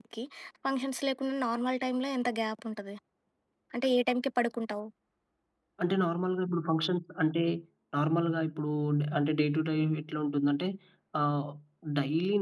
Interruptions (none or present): none